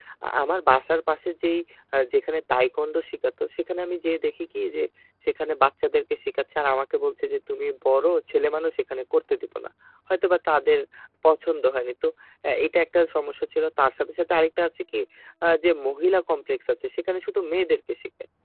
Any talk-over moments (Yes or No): No